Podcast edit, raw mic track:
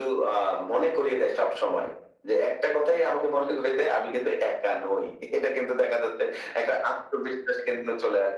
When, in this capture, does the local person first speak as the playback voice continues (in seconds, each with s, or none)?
none